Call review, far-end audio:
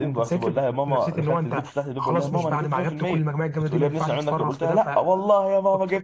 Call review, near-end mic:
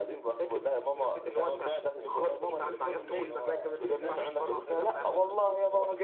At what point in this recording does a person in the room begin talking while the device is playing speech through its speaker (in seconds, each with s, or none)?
1.4 s